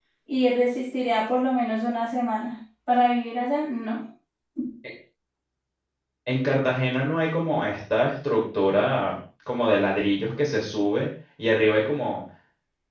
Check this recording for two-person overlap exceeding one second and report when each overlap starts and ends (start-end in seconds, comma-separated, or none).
none